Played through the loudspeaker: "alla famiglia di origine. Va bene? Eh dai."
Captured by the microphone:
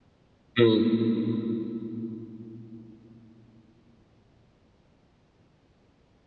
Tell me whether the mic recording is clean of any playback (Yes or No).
Yes